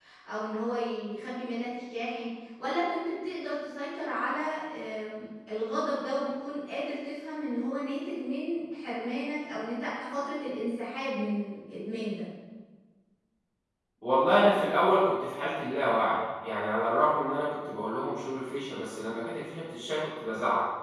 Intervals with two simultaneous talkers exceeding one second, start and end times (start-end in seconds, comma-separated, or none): none